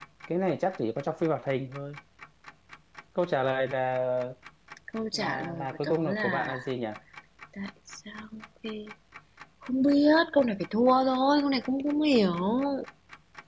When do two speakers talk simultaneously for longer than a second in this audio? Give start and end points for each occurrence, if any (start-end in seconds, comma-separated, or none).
5.1-6.5